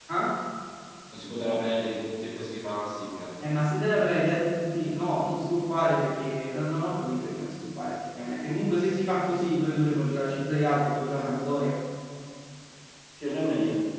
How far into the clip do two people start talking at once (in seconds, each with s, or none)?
none